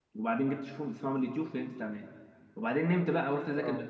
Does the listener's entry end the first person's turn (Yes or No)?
No